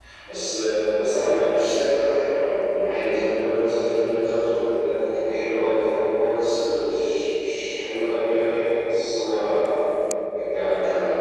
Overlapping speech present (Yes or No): No